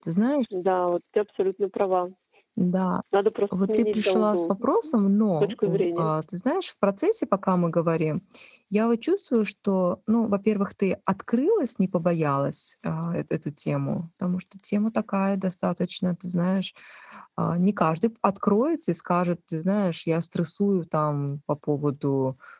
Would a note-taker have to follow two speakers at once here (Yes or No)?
Yes